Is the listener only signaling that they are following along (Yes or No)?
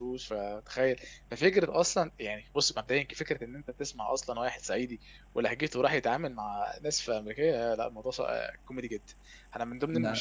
Yes